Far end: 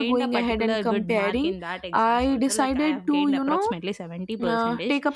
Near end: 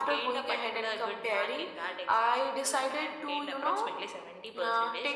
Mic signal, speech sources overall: echo only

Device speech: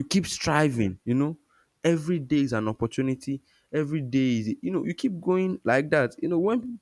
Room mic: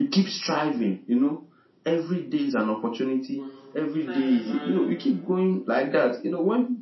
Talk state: both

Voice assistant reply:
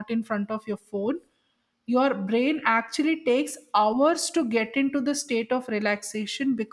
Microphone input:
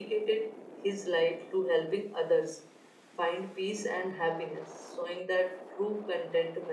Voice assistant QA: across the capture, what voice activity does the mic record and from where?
user only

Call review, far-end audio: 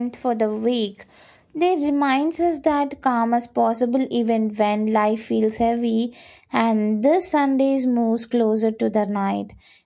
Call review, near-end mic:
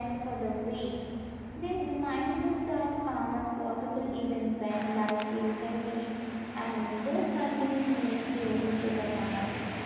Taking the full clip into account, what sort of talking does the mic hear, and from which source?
echo only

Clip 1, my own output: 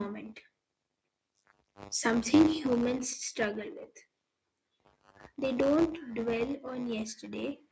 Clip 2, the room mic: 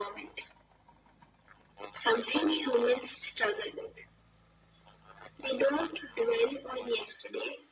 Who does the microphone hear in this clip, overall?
echo only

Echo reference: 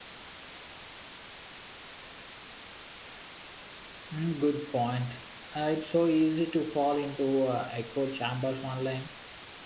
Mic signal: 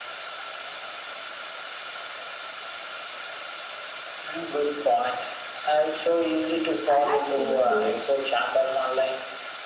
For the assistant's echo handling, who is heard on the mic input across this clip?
both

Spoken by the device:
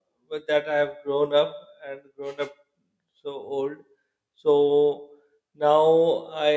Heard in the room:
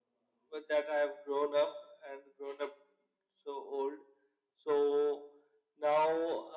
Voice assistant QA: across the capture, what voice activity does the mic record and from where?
echo only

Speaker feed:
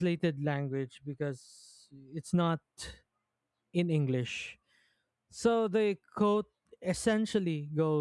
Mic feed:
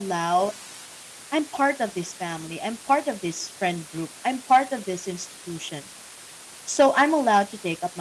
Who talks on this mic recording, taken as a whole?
user only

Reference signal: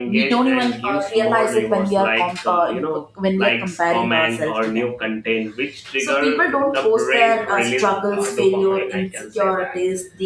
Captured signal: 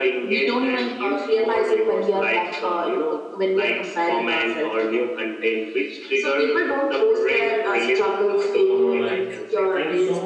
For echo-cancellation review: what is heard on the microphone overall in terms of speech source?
both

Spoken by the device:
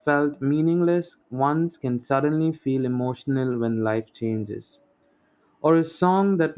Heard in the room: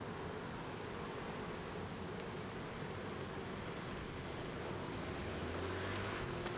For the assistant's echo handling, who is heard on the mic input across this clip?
neither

